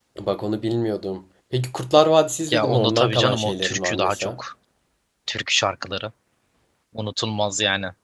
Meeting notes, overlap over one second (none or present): present